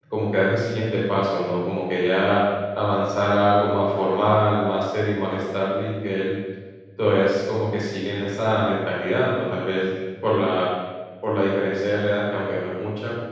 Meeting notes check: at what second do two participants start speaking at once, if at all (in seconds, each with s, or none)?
none